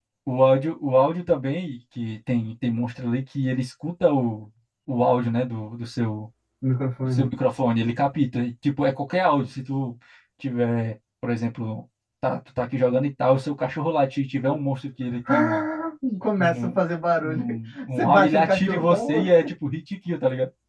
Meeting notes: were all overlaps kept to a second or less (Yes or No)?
No